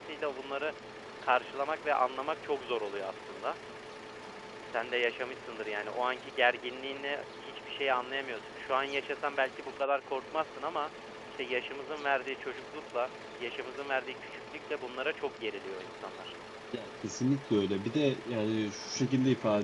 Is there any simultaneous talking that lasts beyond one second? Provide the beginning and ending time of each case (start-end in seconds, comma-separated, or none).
none